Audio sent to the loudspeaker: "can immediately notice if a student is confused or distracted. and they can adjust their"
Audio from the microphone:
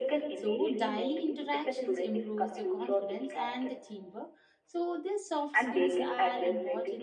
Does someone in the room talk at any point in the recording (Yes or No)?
Yes